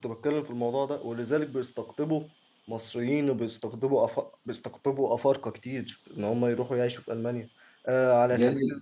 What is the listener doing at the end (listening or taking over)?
listening